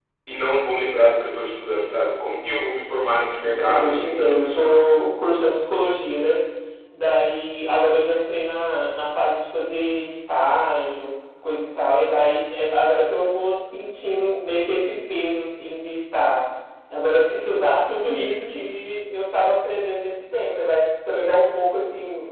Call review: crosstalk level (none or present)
present